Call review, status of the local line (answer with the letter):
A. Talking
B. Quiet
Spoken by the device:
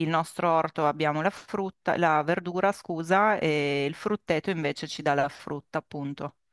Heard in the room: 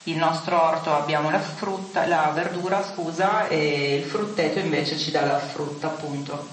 B